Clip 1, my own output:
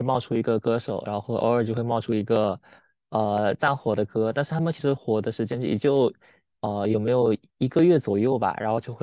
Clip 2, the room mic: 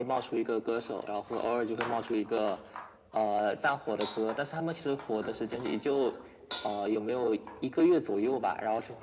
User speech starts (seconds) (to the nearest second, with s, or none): none